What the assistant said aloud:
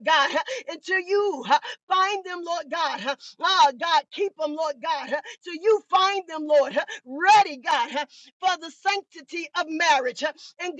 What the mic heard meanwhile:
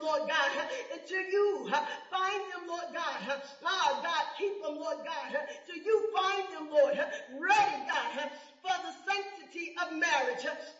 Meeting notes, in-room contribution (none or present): none